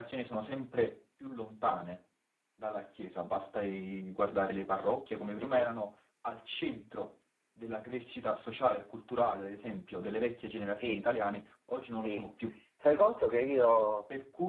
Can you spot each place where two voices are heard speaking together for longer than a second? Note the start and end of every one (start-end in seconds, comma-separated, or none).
none